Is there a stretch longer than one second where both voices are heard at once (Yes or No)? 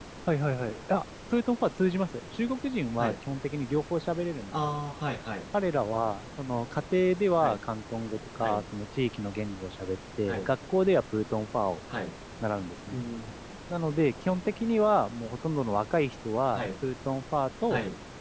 No